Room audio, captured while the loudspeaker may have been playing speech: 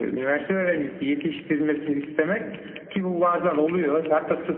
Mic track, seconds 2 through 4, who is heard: echo only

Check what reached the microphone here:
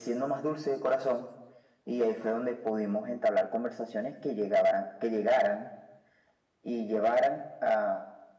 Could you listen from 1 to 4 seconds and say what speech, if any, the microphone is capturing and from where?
echo only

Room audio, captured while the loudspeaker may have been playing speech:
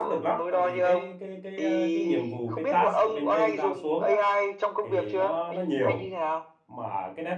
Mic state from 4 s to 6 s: both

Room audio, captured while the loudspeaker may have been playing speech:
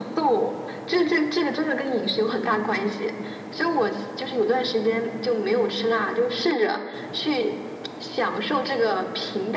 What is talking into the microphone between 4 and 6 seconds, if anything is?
echo only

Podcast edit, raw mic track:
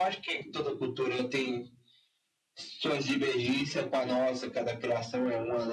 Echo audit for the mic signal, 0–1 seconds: echo only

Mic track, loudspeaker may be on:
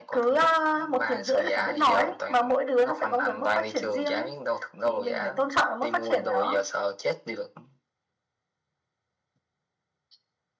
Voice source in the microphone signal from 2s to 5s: echo only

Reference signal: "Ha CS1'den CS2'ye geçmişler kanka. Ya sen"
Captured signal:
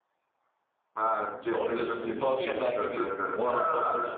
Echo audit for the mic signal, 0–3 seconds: both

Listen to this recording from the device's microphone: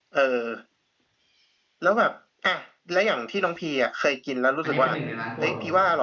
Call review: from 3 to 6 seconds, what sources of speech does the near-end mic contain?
both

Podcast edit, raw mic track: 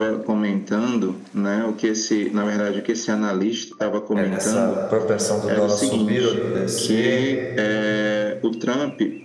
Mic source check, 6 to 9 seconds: both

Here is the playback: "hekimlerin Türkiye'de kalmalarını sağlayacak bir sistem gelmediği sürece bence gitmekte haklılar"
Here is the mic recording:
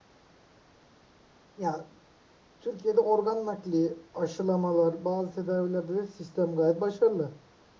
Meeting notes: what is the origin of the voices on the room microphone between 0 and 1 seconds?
neither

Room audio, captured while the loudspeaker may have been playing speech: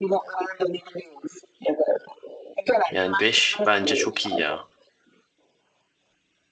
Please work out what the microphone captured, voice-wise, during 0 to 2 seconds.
echo only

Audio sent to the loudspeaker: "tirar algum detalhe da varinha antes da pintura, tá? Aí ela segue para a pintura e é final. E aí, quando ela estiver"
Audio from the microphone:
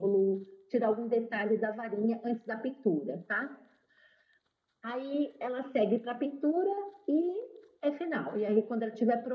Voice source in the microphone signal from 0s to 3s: echo only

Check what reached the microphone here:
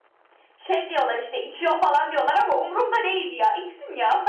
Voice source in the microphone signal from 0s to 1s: echo only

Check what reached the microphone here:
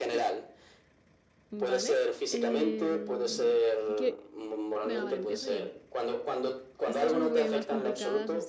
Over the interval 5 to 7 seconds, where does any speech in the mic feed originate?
both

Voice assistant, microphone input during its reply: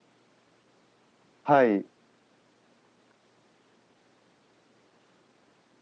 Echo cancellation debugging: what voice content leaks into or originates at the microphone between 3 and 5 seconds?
neither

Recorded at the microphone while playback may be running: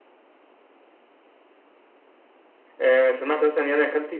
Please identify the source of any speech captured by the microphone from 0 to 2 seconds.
neither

